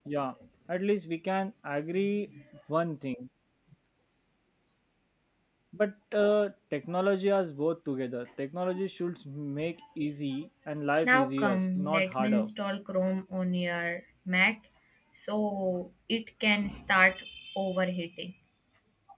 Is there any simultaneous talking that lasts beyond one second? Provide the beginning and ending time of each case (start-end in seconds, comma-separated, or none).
11.0-12.5